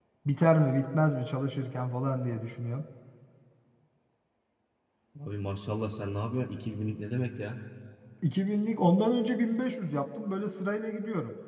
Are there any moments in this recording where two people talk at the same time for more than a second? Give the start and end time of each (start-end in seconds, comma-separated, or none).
none